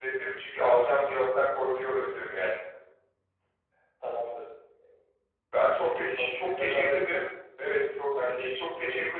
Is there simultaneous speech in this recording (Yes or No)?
Yes